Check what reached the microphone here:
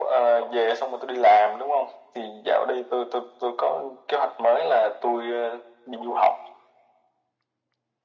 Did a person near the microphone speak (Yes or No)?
No